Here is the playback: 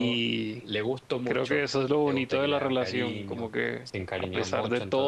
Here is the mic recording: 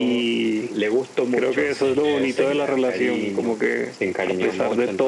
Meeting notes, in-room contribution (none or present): present